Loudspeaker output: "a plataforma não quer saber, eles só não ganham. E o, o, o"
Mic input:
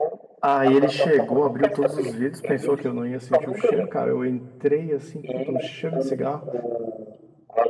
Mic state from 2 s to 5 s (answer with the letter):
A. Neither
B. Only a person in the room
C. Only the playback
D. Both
D